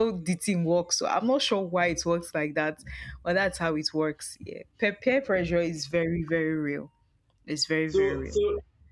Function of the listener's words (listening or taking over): taking over